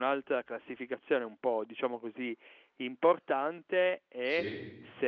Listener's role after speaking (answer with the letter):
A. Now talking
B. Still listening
B